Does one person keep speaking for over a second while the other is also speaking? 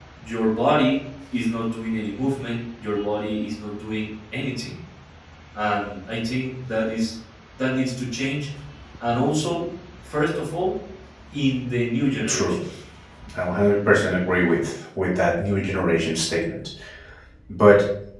No

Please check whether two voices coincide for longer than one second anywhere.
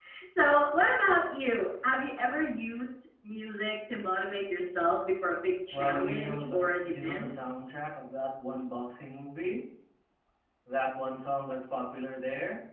Yes, from 5.7 s

